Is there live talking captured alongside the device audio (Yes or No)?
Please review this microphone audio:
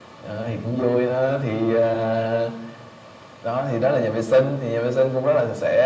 No